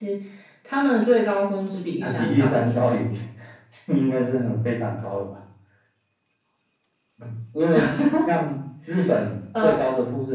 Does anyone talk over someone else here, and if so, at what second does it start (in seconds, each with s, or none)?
2.0 s